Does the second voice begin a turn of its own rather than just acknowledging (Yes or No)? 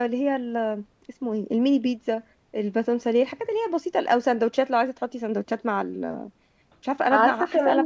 Yes